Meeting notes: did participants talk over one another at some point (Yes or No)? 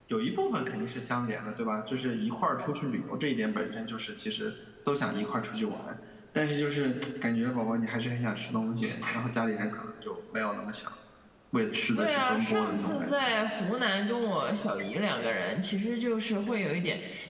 Yes